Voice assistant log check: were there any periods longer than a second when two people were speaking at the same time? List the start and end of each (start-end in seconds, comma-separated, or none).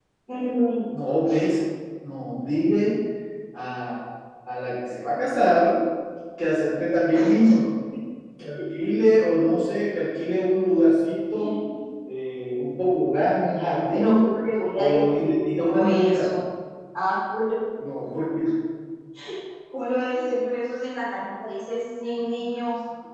14.8-16.3